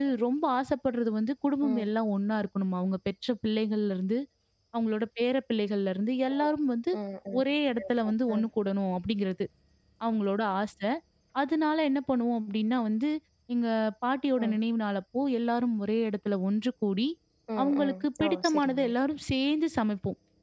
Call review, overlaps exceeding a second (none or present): present